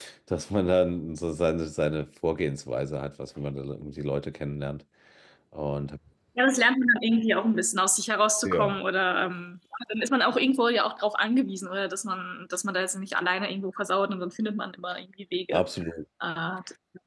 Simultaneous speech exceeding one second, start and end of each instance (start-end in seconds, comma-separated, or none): none